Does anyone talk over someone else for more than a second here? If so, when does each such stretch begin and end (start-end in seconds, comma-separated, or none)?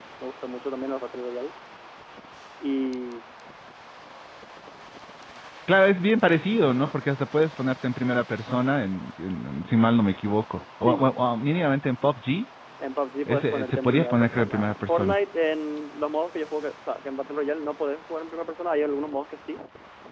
13.3-15.2